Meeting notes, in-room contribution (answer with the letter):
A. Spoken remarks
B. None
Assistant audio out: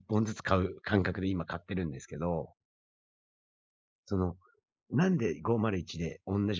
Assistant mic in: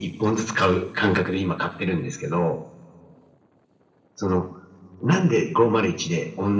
B